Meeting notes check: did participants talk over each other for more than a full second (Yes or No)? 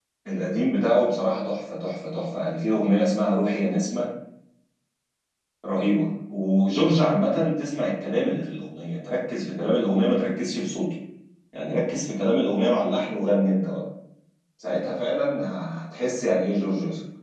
No